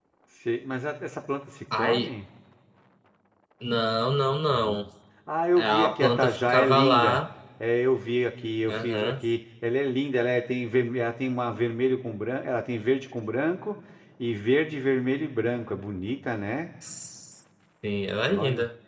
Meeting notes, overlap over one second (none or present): present